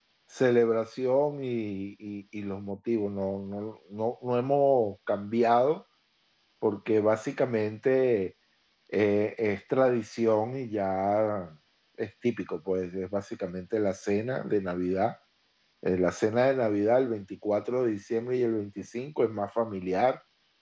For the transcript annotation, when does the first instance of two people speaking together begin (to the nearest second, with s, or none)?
none